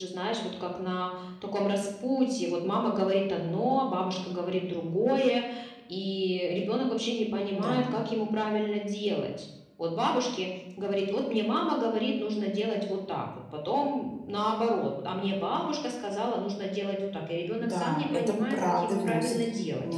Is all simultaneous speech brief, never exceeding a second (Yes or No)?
No